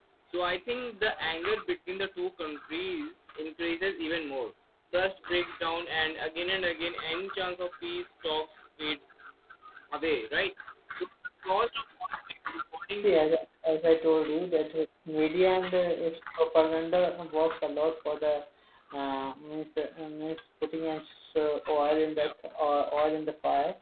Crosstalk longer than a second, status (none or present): none